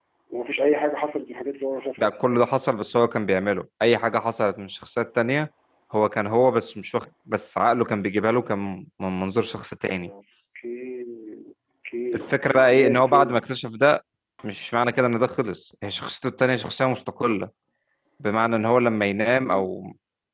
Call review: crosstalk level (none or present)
present